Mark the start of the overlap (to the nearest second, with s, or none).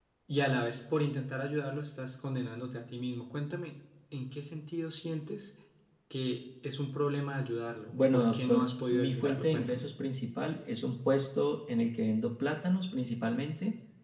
8 s